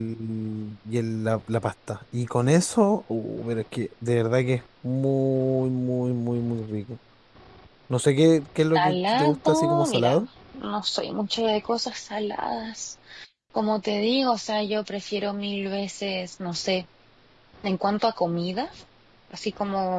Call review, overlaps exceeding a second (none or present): present